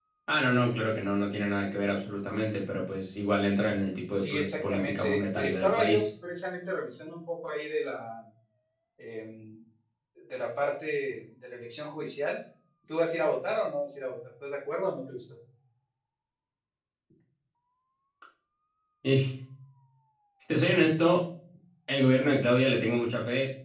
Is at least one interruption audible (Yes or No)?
Yes